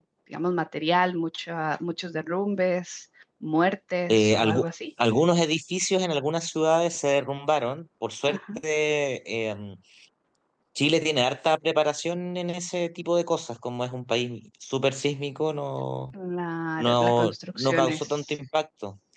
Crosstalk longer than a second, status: present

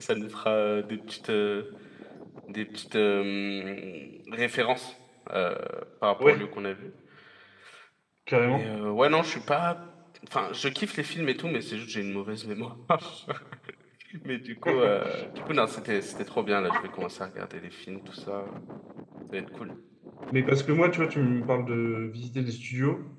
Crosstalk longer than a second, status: none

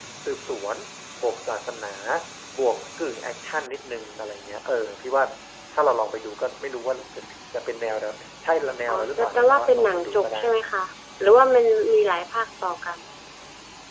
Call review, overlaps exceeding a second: present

